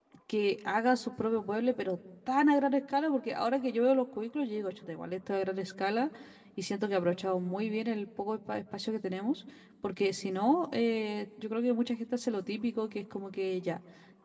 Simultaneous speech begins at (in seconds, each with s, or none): none